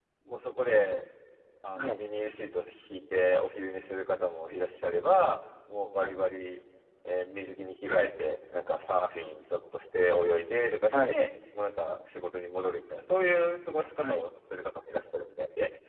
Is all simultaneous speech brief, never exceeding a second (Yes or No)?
Yes